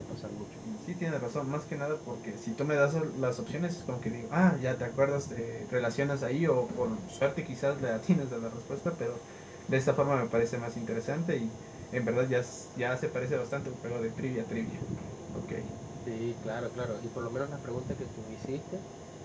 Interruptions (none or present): none